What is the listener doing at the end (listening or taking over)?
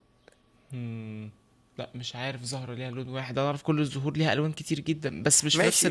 taking over